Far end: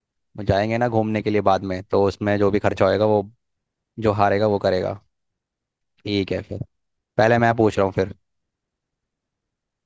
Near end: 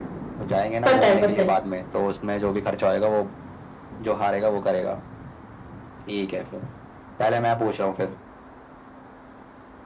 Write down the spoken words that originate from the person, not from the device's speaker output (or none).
पता है पता है